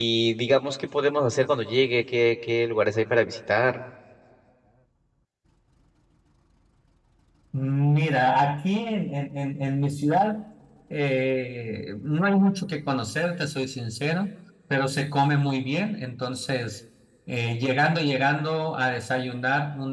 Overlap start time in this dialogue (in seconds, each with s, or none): none